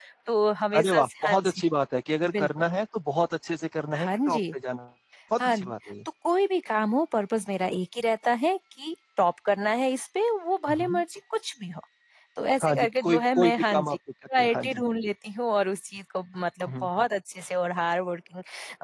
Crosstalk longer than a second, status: present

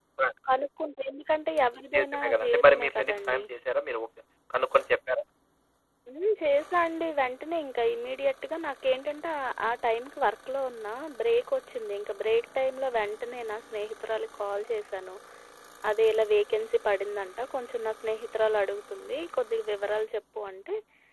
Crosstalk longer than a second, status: present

